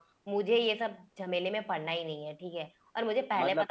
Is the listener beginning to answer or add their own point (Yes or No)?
No